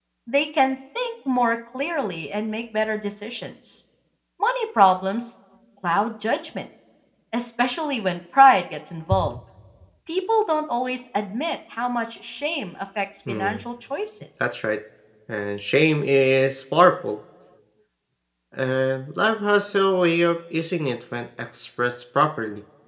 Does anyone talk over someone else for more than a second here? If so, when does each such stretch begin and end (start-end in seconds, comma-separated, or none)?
none